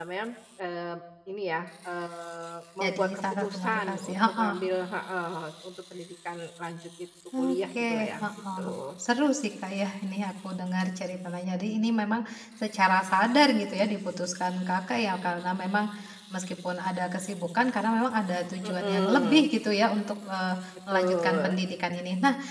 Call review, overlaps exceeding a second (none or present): present